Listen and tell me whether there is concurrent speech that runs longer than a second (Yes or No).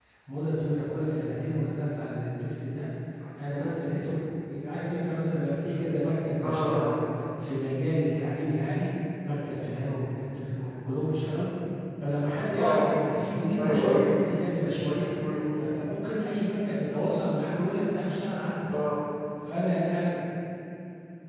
No